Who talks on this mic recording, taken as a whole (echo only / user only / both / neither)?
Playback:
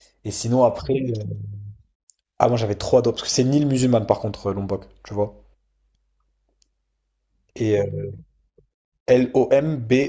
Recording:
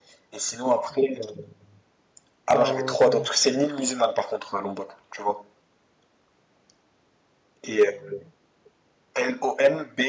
both